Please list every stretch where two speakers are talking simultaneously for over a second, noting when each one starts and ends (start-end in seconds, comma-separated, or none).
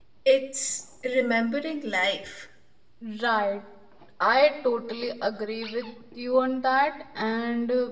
none